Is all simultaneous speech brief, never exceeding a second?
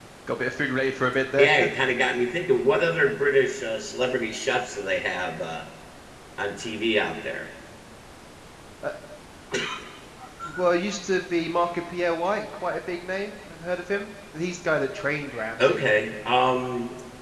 Yes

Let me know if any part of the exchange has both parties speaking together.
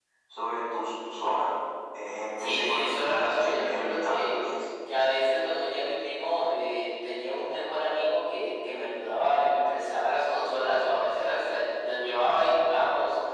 Yes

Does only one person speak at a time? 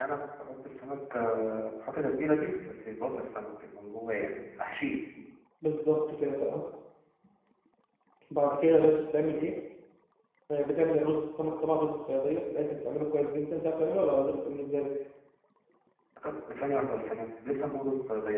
Yes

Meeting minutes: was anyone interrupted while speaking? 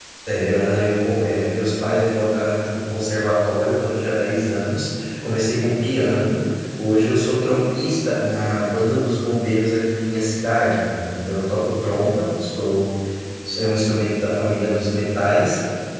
No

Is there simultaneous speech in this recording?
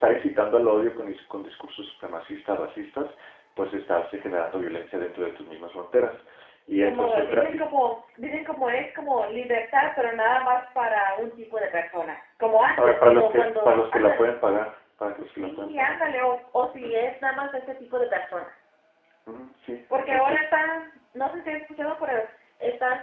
Yes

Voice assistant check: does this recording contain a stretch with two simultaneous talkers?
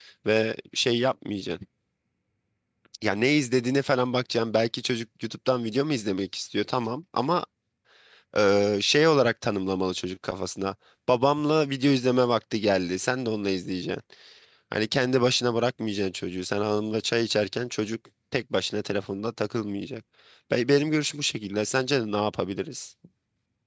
No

